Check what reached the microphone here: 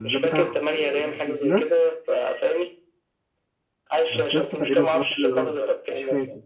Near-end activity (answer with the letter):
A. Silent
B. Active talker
B